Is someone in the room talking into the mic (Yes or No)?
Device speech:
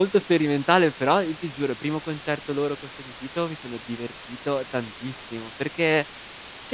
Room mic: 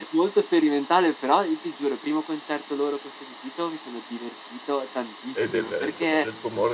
Yes